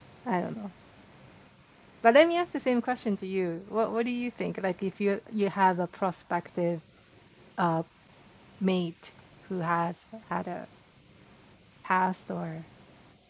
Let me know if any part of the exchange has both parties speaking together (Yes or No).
No